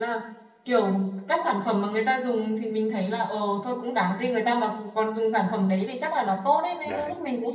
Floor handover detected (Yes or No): No